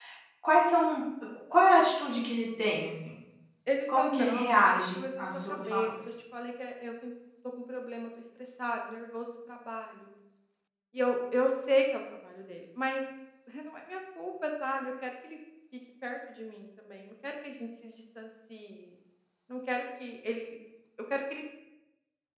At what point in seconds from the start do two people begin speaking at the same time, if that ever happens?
4.0 s

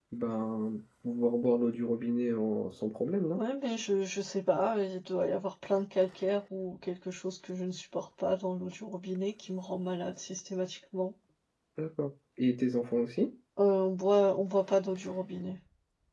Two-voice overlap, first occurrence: none

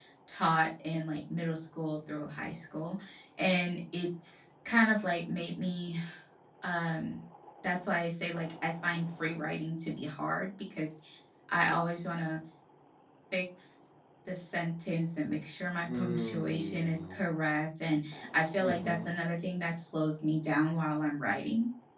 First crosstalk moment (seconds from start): 15.8 s

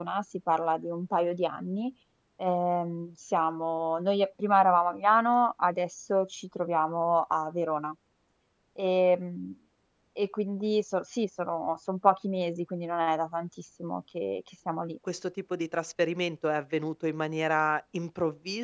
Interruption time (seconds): none

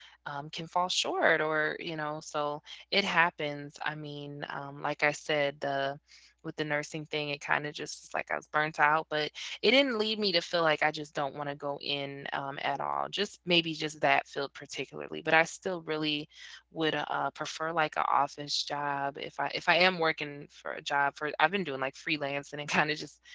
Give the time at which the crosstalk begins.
none

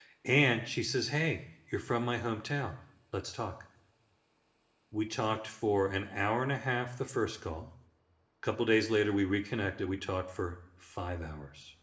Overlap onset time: none

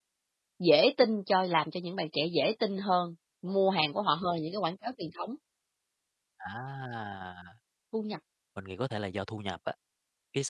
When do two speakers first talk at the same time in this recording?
none

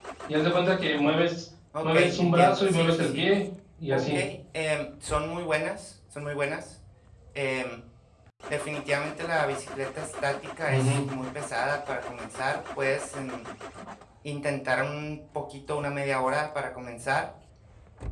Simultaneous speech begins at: 1.8 s

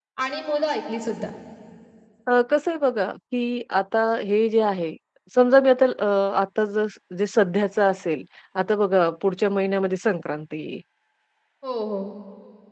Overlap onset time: none

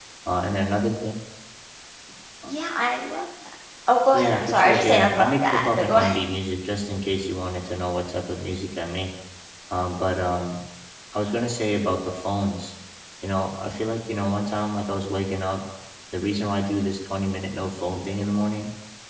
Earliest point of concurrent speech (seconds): 4.1 s

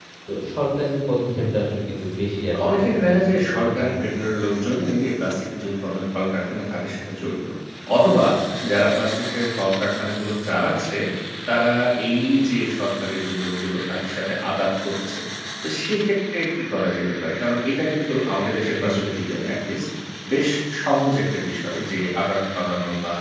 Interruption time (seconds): 2.7 s

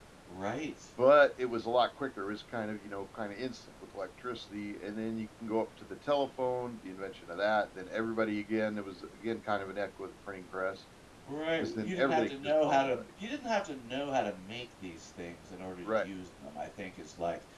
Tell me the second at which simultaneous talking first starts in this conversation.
11.6 s

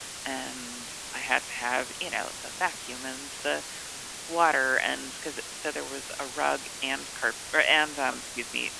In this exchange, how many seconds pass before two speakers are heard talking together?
none

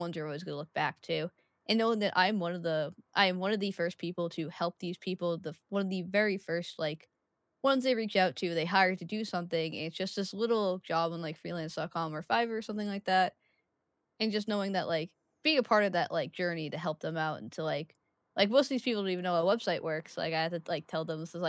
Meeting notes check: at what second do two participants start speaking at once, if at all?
none

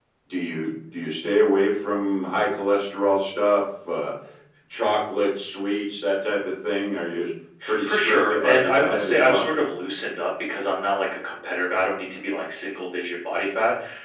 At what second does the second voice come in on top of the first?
7.8 s

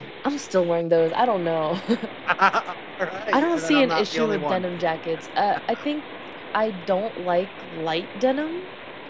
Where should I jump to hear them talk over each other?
3.3 s

